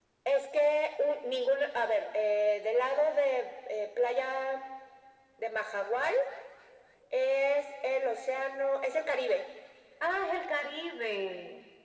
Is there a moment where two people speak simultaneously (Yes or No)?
No